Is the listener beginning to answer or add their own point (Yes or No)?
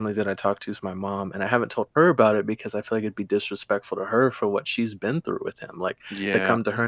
No